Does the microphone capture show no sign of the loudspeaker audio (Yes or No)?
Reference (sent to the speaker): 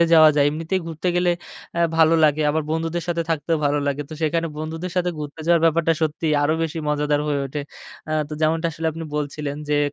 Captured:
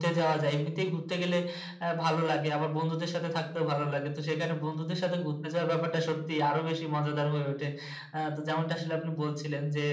No